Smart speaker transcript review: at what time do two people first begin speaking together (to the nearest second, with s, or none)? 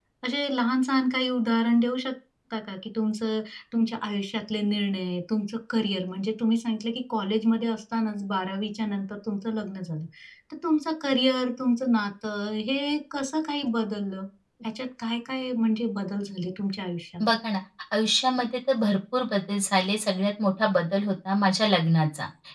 none